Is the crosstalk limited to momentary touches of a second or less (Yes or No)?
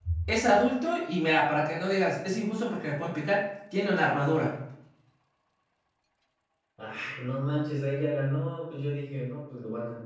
Yes